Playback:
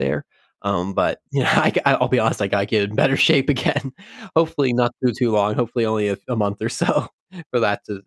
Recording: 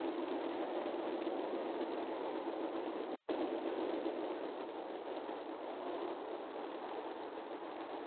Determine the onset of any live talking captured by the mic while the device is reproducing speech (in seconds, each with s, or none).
none